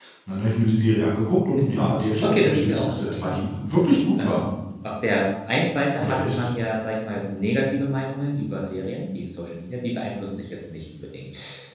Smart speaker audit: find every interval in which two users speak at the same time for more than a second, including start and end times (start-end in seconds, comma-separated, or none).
1.6-3.4